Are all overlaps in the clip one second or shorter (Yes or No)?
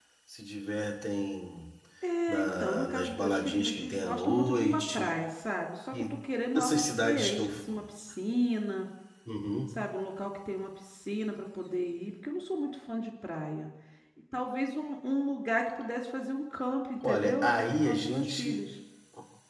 No